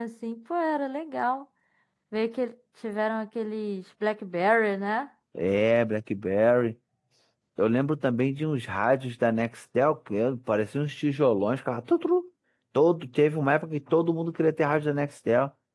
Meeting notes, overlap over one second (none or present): none